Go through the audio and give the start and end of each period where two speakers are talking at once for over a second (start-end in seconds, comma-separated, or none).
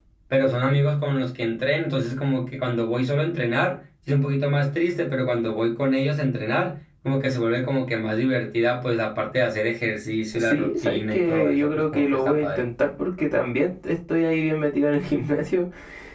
10.3-12.7